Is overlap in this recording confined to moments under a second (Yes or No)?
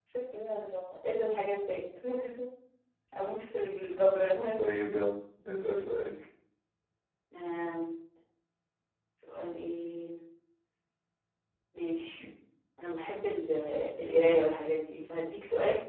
Yes